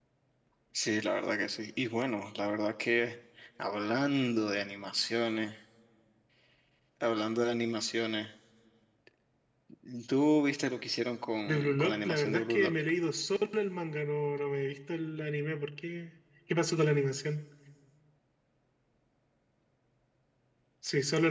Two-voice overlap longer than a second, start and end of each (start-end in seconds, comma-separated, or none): 11.5-12.7